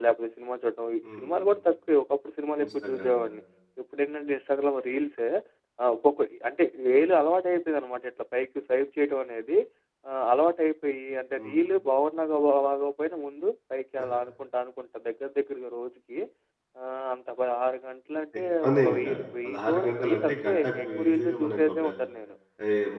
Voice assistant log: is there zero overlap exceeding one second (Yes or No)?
No